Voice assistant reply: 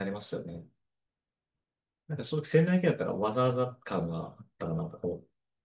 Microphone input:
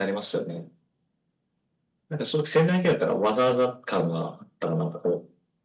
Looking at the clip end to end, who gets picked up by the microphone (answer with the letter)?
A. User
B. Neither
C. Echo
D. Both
C